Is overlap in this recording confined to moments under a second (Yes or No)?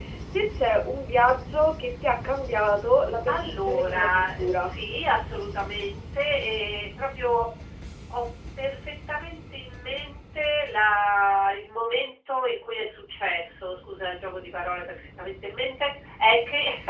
No